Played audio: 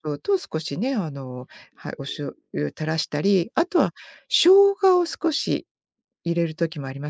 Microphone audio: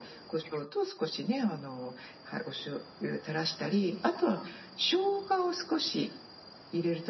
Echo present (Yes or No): Yes